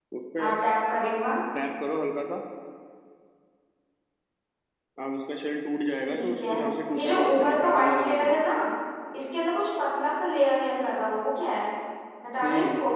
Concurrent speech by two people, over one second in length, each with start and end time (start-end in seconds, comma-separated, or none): 6.9-8.4